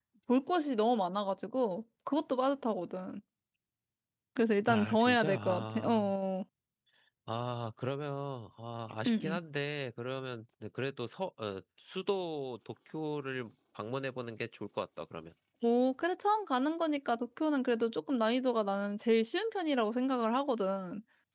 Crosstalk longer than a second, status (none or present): present